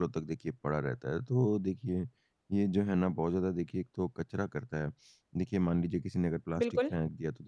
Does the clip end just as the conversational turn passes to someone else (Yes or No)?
No